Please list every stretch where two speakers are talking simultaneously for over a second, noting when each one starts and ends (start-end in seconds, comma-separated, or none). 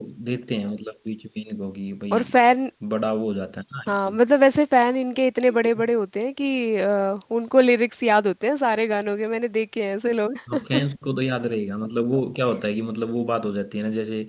none